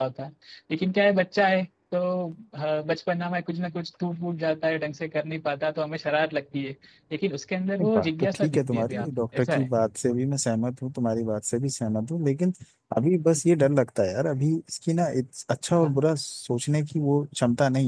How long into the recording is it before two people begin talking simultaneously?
7.8 s

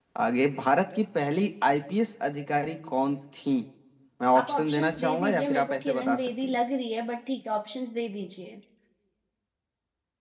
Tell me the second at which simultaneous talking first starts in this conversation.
4.3 s

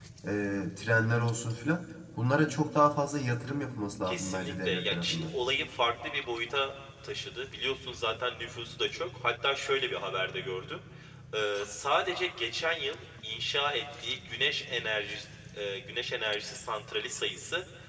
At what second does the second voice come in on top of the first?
4.1 s

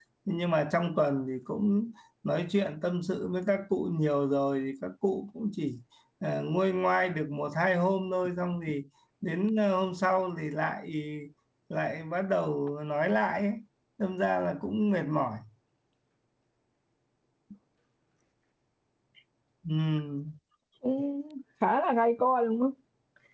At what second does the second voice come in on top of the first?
none

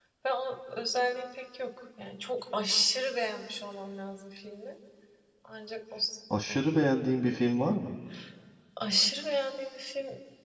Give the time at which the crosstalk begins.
none

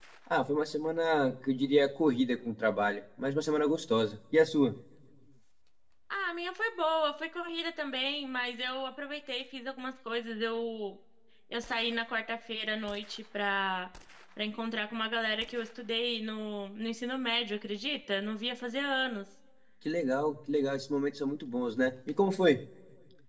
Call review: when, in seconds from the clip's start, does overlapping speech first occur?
none

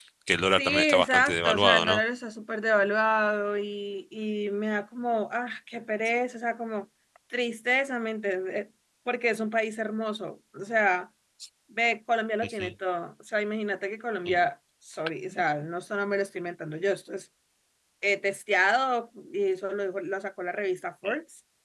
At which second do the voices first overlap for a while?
0.5 s

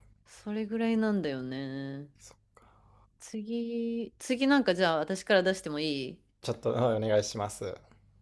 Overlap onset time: none

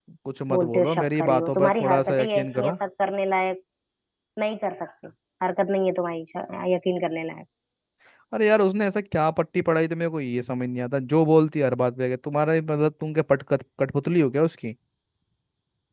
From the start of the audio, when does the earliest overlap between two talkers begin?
0.5 s

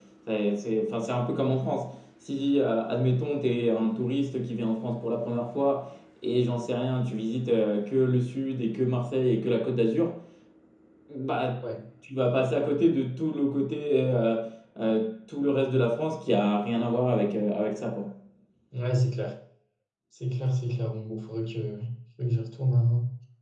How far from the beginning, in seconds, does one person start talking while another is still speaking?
none

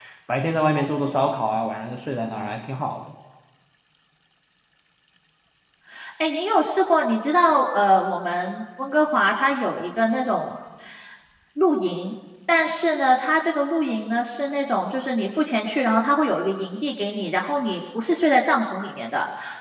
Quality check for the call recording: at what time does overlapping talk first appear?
none

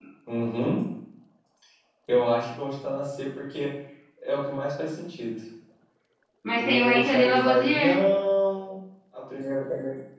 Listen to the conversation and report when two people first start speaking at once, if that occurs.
6.5 s

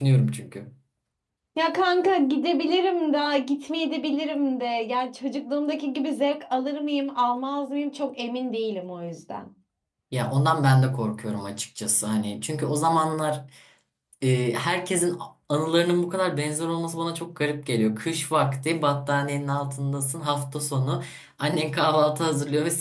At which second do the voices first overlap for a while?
none

